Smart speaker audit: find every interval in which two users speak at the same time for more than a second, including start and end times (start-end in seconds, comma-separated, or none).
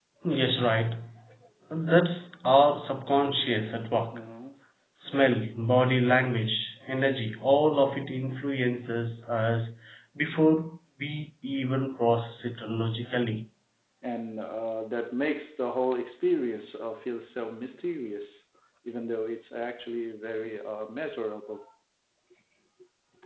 none